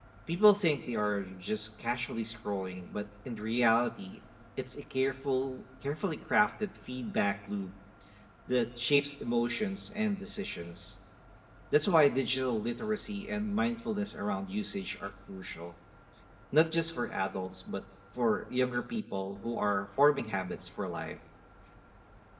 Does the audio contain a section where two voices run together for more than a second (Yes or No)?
No